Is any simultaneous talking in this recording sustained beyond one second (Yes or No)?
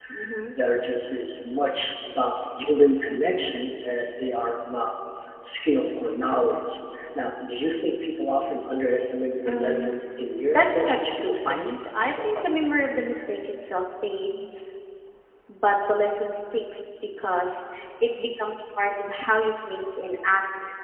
Yes